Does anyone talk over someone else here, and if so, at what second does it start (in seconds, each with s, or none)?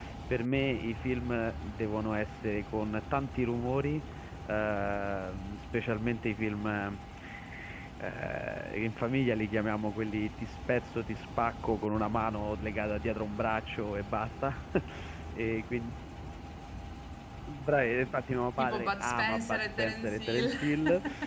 18.6 s